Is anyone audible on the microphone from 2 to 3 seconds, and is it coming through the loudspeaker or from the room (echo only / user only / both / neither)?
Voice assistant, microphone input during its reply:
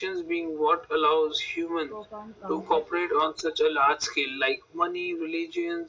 both